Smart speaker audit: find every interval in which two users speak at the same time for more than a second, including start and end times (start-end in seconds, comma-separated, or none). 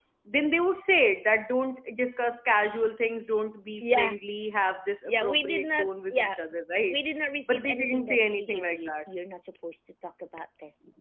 5.0-6.4, 7.5-9.1